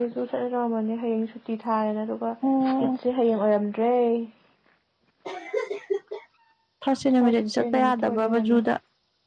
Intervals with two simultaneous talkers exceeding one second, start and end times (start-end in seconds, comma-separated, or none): 7.2-8.6